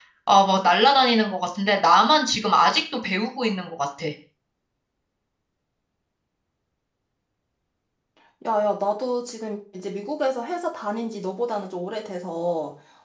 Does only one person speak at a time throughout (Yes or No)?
Yes